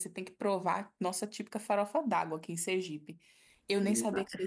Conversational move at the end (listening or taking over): taking over